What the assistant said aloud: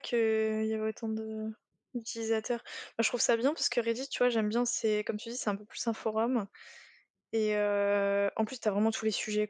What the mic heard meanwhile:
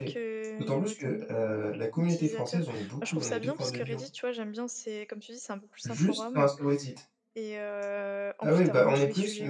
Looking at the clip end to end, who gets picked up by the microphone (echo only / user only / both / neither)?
both